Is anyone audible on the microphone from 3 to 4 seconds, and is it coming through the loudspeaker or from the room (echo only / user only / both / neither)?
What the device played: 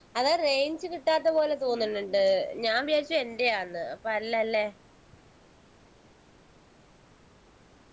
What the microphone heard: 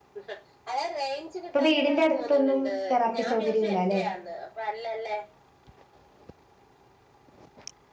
both